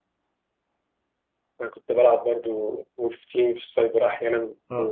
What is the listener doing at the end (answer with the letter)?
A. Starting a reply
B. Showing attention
A